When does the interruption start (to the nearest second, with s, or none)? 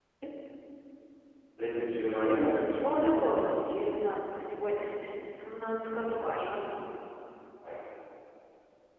2 s